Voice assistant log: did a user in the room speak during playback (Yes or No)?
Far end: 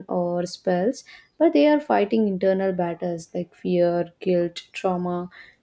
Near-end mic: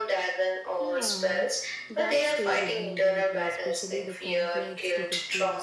Yes